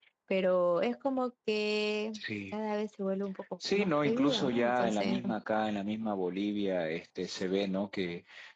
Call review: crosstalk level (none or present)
present